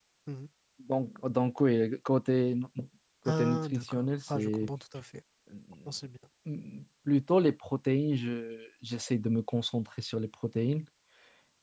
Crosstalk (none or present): present